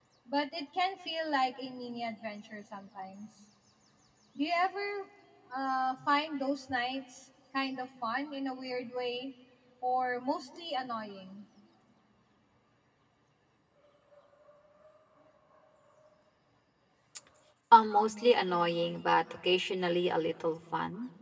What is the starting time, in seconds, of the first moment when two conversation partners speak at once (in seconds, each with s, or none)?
none